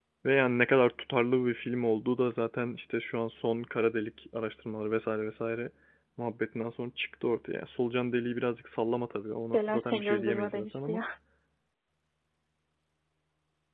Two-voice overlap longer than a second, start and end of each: 9.5-11.0

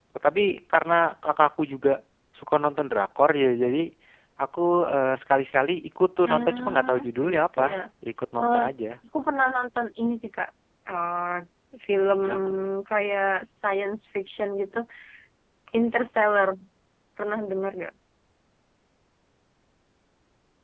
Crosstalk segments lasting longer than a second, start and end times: 6.2-7.6

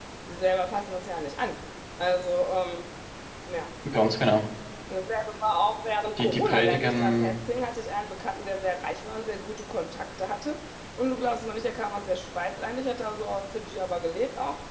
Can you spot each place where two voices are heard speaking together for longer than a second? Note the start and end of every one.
6.2-7.4

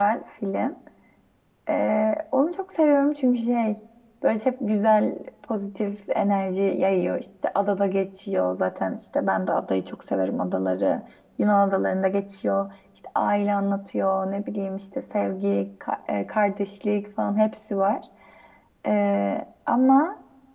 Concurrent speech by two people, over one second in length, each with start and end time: none

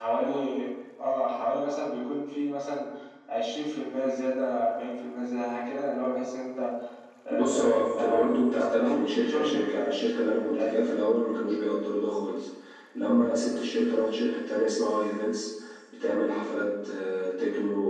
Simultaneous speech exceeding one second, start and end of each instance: 7.3-11.0

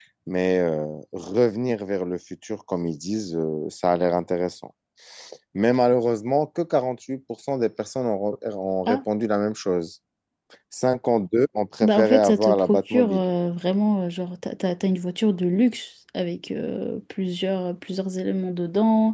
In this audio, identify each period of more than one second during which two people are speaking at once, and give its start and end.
11.8-13.2

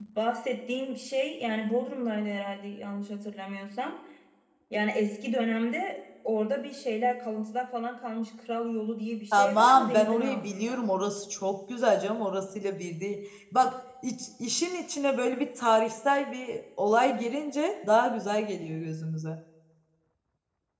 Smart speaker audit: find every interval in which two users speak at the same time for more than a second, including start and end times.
9.3-10.9

